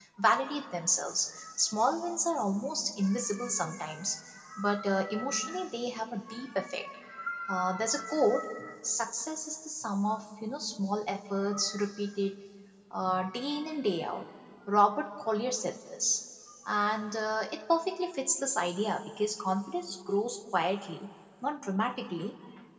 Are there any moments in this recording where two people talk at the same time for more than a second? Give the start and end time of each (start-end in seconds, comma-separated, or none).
none